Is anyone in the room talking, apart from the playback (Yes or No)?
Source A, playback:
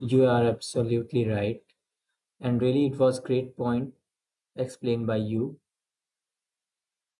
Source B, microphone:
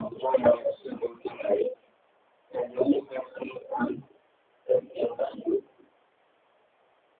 No